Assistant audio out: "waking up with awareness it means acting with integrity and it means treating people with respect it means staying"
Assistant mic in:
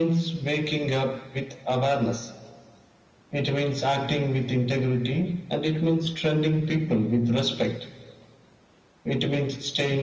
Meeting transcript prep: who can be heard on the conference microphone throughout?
echo only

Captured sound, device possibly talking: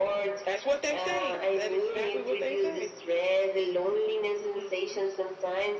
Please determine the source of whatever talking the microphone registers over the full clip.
echo only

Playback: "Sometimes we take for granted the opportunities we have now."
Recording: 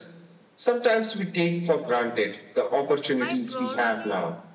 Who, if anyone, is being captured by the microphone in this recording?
both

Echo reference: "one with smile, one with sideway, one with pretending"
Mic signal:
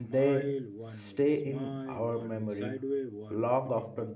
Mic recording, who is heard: both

